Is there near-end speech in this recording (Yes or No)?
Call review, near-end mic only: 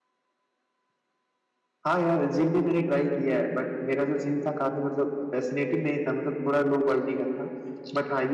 No